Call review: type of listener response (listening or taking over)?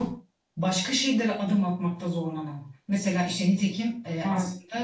listening